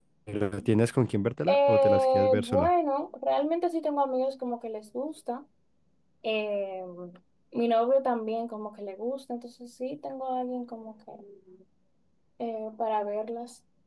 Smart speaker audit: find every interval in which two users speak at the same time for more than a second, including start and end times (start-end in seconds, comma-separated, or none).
1.5-2.7